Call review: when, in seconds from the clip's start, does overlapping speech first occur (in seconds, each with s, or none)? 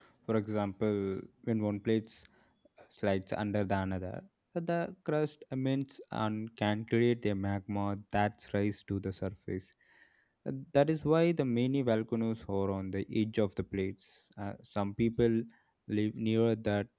none